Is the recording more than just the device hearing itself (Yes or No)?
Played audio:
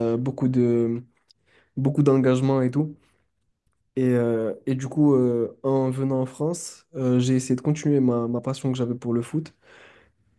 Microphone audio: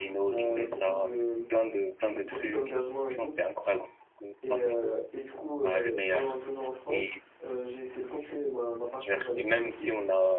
Yes